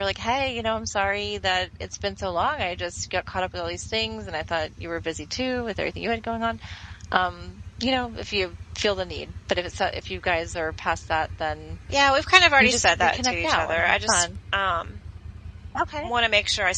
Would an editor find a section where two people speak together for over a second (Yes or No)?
Yes